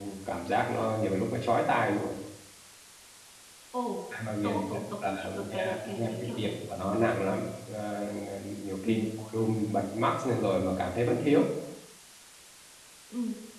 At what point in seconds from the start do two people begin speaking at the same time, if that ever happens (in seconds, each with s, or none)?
4.4 s